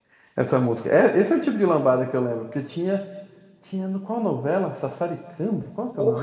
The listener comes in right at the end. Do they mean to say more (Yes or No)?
No